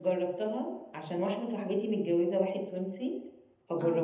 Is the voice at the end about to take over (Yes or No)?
No